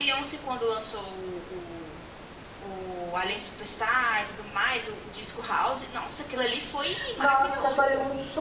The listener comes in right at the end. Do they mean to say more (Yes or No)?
Yes